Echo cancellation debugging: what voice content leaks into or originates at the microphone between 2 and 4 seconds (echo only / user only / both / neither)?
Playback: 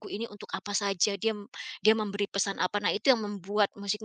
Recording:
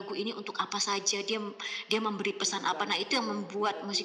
both